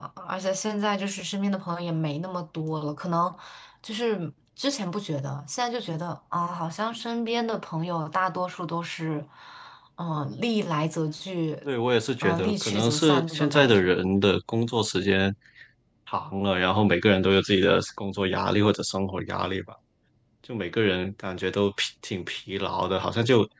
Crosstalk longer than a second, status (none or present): present